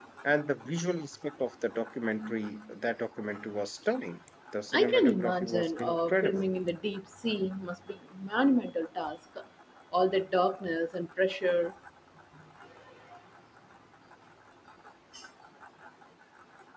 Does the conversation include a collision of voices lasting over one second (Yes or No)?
Yes